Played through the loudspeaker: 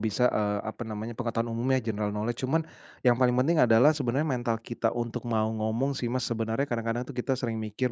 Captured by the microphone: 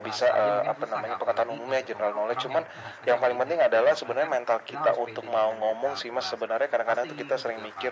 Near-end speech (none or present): present